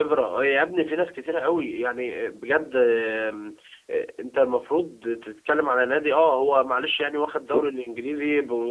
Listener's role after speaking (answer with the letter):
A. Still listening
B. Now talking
A